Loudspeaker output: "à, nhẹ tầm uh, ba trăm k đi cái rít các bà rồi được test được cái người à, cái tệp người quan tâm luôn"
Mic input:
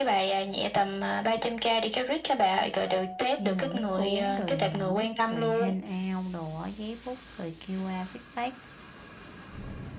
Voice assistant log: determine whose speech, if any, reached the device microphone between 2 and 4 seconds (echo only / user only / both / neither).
both